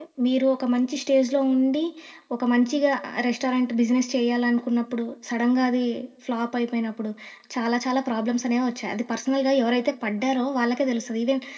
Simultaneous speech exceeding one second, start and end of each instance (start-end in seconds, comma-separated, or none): none